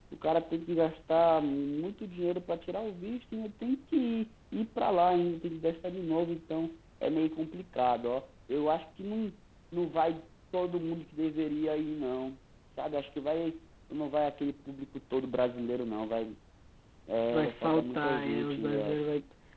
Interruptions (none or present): present